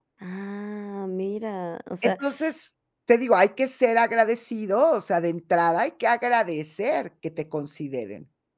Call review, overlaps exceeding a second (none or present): none